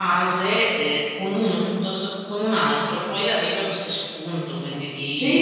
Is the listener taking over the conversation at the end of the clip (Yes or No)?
Yes